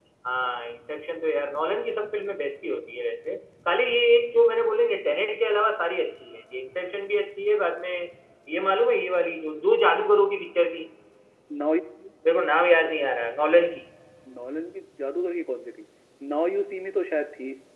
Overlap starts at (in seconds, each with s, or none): none